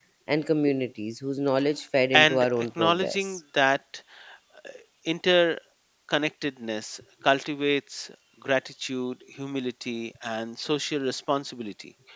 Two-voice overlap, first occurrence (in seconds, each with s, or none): 2.1 s